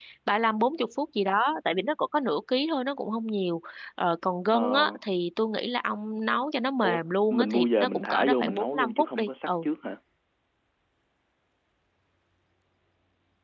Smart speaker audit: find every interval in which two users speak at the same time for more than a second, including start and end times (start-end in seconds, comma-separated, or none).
6.8-9.5